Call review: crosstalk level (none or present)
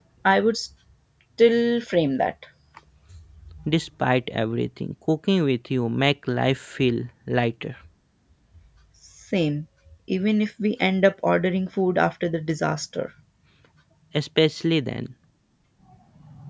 none